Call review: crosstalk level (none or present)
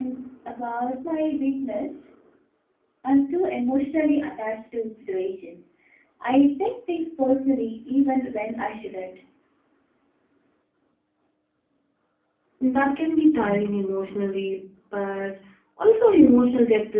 none